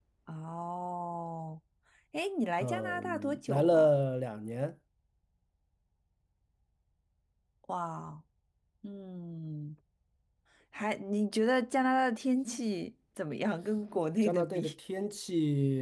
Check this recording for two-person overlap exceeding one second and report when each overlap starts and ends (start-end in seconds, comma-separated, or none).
2.6-3.9